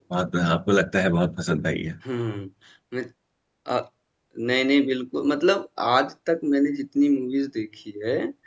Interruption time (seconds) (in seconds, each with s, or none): none